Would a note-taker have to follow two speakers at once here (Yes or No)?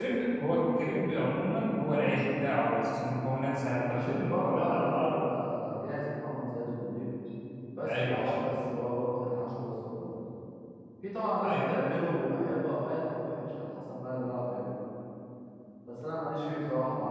Yes